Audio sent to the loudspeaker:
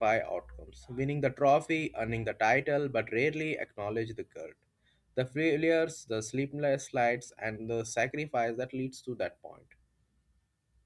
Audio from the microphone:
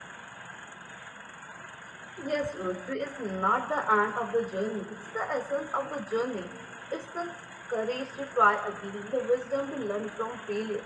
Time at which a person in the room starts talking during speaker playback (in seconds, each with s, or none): 2.2 s